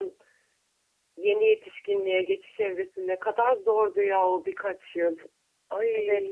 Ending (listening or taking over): taking over